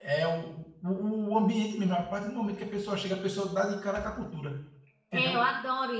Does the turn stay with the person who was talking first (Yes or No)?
No